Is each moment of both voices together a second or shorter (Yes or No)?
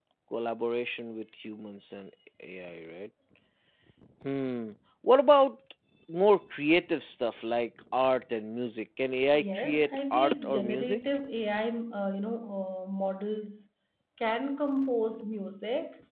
No